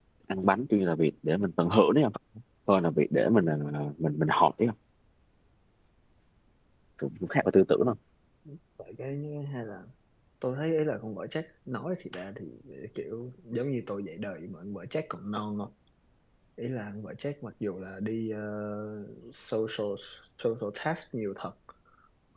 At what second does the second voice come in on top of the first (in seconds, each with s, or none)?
none